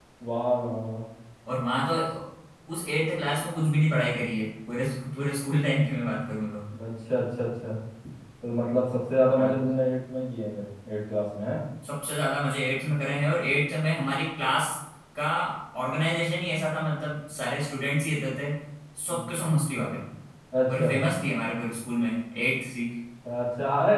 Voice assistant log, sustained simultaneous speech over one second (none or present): none